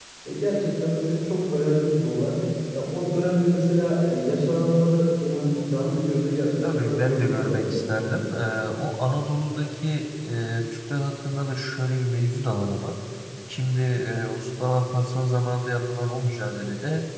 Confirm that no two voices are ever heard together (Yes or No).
No